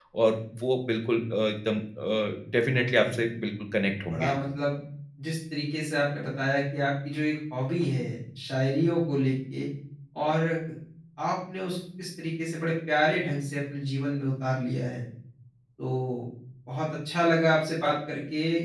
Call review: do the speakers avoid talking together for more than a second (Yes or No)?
Yes